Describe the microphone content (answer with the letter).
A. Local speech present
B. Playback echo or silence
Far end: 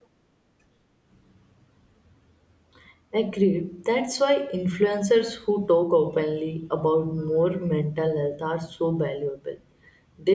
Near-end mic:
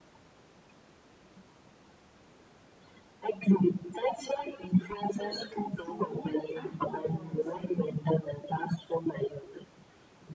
A